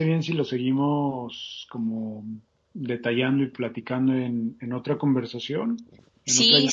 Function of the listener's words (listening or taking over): taking over